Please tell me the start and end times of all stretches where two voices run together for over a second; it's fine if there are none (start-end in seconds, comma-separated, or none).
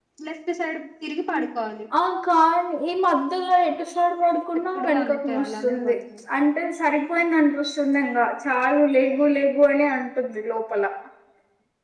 4.8-6.0